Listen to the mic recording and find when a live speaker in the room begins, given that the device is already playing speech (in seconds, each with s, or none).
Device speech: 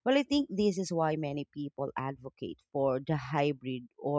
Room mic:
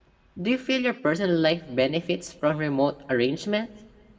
0.4 s